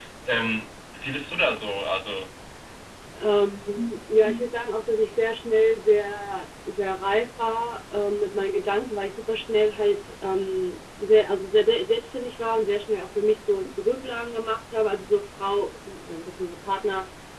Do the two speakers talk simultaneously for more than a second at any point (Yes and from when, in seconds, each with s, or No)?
No